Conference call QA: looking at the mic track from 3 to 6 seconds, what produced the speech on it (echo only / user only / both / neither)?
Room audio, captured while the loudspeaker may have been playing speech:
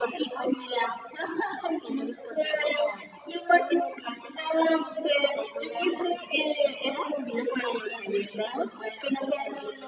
echo only